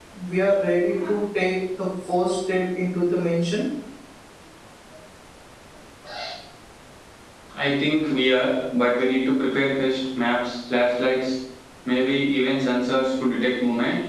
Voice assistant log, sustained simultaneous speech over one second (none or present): none